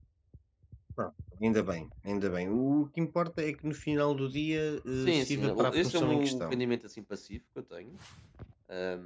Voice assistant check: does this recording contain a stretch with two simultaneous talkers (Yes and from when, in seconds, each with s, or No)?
Yes, from 5.0 s